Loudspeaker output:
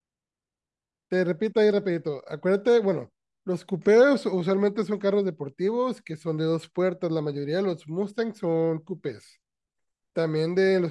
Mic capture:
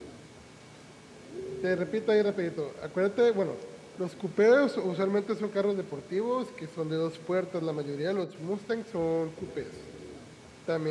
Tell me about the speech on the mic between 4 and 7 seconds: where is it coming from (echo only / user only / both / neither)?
echo only